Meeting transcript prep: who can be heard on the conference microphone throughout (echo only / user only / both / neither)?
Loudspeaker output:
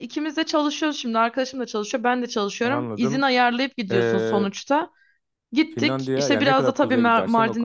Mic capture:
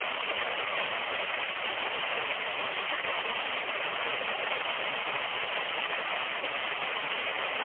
neither